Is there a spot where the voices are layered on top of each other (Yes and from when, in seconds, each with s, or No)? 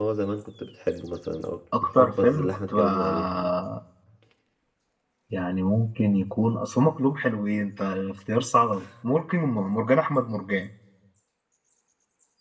Yes, from 1.7 s